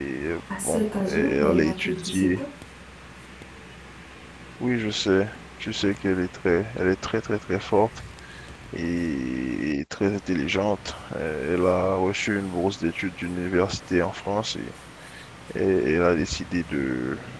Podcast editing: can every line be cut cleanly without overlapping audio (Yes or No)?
No